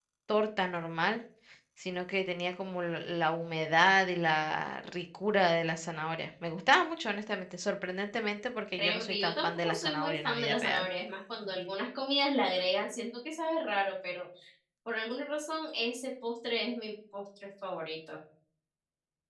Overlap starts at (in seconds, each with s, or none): 8.8 s